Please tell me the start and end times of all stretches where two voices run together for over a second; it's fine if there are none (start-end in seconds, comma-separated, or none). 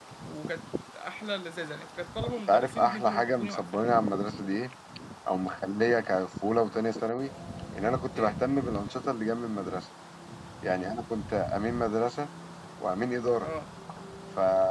2.5-3.9